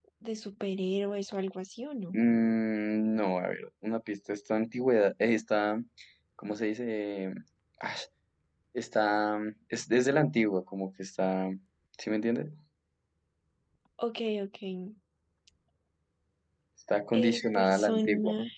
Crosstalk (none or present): present